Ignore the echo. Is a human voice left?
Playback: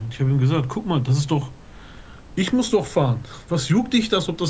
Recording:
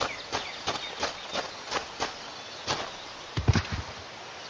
No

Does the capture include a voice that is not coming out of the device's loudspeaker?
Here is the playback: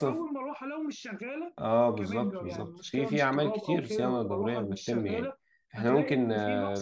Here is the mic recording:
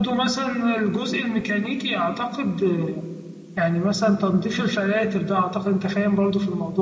Yes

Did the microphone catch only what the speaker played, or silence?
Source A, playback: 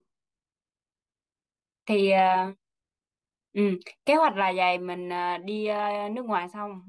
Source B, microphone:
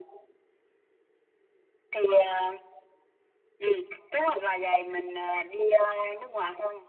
Yes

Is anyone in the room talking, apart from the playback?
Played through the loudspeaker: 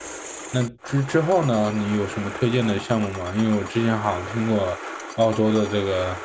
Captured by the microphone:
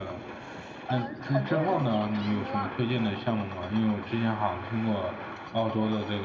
Yes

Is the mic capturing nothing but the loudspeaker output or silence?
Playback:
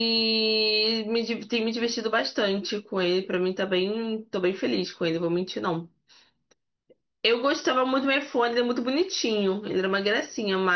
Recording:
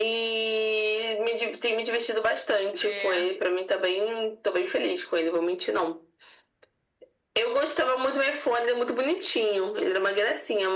No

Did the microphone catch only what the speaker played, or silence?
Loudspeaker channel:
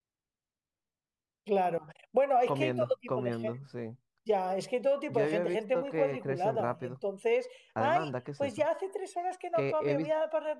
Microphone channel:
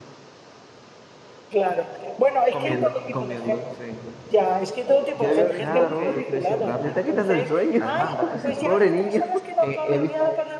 No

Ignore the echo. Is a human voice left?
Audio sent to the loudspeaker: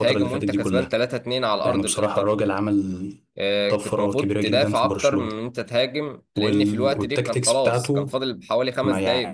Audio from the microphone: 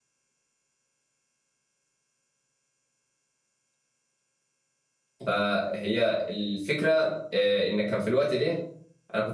Yes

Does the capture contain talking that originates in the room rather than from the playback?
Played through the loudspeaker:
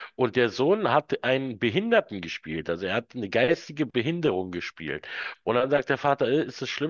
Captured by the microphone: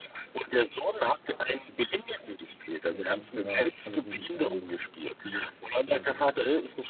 Yes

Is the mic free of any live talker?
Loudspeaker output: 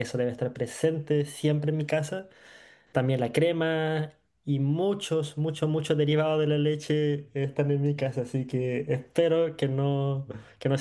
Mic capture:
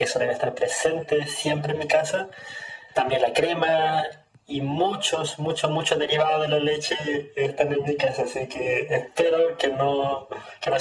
Yes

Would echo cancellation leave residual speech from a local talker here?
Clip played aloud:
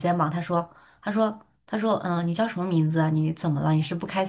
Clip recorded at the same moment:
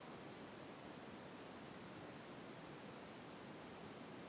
No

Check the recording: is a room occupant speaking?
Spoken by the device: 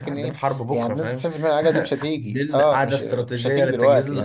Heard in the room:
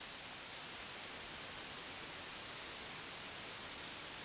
No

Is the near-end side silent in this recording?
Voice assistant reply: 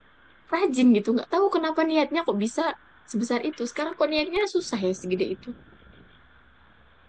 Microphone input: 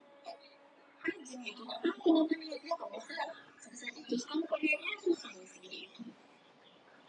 Yes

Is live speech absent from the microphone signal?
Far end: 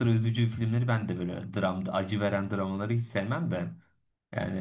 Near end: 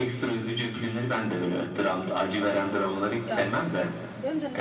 No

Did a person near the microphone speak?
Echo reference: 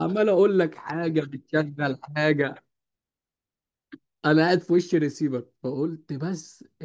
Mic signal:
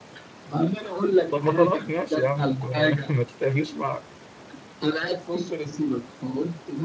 Yes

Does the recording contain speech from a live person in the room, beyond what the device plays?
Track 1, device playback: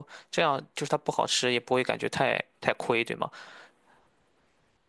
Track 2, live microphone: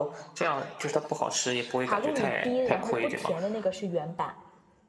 Yes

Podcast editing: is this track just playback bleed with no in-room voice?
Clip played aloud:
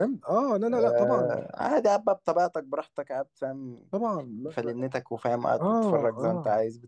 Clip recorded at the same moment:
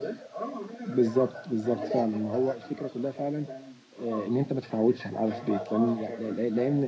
No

